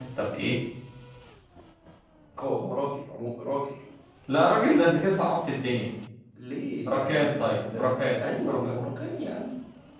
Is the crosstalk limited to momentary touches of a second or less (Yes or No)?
No